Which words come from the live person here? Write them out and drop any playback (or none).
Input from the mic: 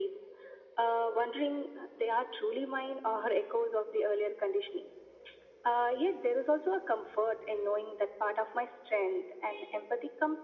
none